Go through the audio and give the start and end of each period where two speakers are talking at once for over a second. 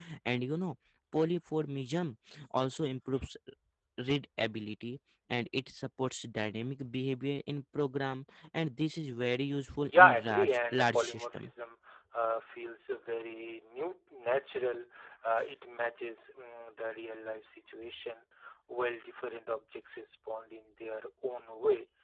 9.9-11.5

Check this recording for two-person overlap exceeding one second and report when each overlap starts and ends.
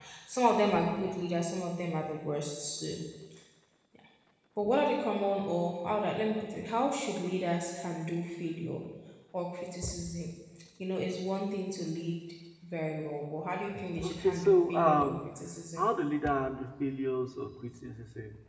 14.0-15.3

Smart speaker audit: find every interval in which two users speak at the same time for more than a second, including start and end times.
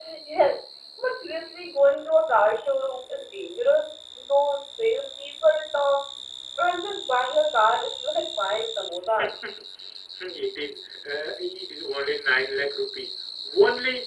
none

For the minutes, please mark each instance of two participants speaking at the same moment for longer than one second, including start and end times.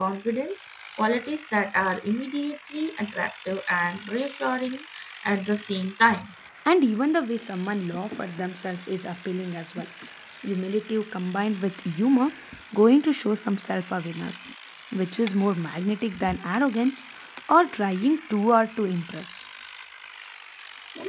none

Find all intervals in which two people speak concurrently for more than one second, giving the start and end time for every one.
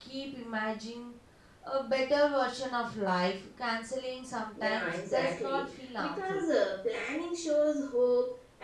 4.6-6.4

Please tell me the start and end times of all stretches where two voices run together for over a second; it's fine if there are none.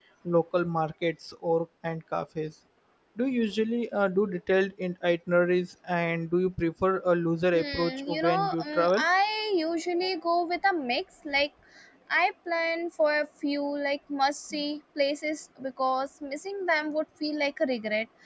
7.5-9.0

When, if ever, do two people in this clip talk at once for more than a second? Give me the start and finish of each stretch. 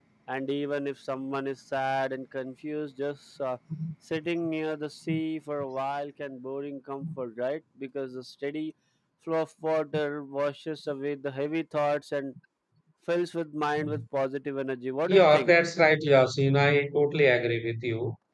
none

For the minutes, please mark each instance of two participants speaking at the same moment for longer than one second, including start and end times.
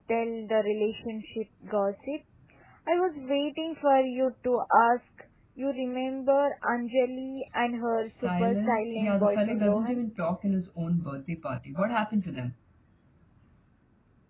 8.0-10.0

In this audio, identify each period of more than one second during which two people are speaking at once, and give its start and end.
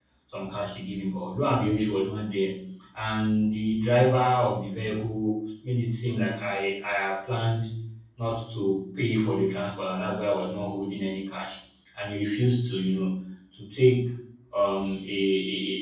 none

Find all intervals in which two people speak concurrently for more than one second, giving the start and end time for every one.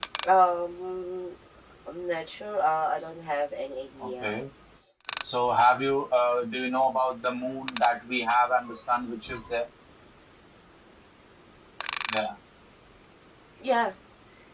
none

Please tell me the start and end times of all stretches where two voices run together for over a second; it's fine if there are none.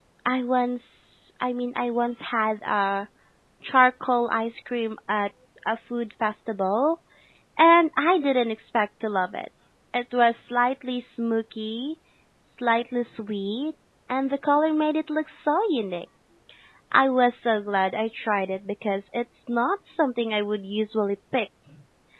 none

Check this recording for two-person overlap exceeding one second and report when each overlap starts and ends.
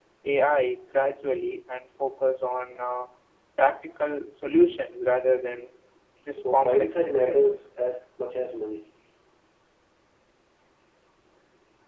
6.4-7.6

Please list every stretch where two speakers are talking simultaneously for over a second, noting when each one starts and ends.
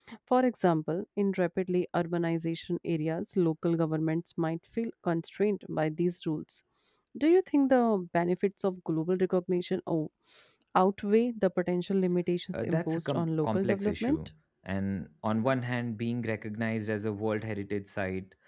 12.6-14.2

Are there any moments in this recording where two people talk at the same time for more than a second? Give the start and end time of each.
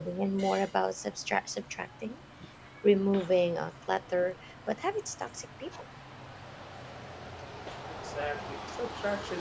none

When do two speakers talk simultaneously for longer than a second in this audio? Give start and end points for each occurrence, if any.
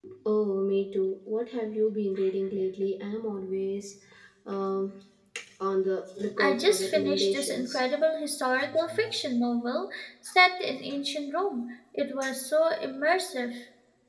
6.4-7.8

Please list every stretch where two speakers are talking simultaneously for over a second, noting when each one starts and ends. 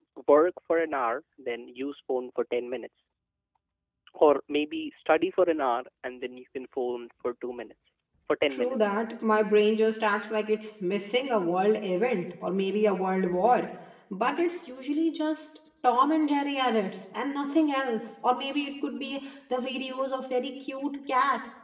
none

